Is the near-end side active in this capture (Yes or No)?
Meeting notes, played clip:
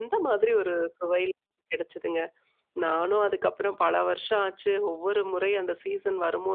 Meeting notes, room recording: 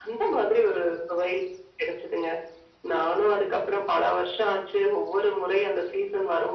No